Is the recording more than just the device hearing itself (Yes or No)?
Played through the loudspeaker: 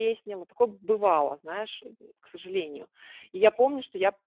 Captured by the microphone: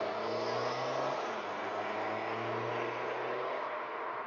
No